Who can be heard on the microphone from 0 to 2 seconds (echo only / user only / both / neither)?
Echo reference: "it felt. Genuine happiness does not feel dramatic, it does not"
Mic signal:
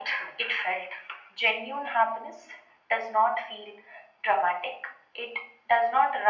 echo only